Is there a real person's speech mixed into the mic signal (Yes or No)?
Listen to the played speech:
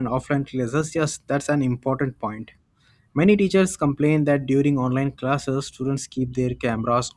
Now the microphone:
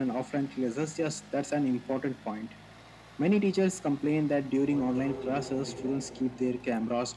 Yes